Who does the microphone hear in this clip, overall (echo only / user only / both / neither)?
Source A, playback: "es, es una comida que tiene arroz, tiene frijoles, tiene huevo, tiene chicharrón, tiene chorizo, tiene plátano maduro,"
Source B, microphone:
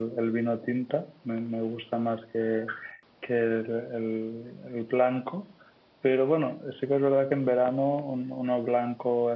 user only